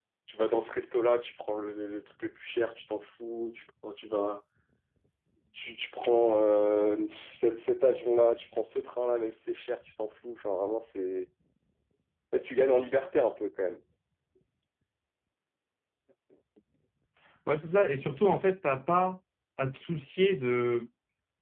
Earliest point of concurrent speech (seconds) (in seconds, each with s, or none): none